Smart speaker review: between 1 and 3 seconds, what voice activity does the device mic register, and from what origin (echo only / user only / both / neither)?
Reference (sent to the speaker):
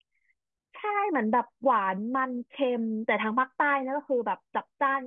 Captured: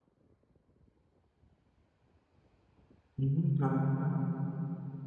neither